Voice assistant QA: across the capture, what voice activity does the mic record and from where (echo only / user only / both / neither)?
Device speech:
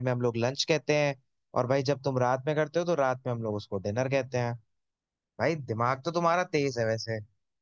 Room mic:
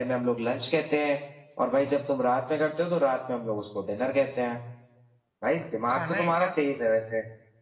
both